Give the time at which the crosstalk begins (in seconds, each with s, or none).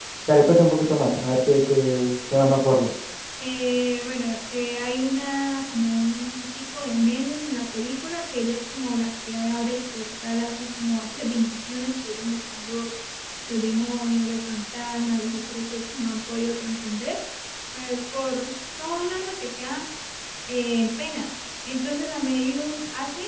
none